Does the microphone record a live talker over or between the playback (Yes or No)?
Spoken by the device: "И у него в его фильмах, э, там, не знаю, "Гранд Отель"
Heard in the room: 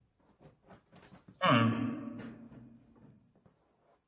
Yes